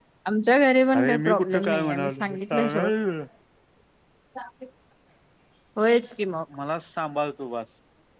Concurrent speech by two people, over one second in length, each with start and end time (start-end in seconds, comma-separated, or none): 0.9-2.9